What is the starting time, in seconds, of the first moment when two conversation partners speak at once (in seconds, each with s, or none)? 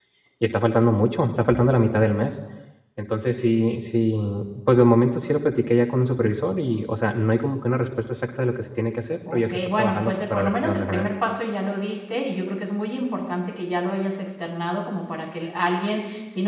9.2 s